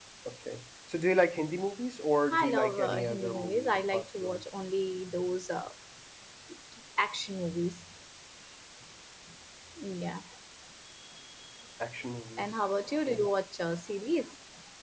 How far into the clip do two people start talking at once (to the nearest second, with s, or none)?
2 s